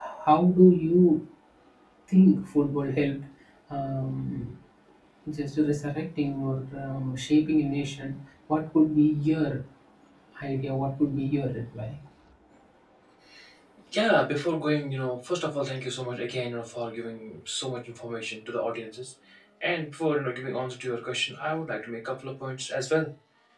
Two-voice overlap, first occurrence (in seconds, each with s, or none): none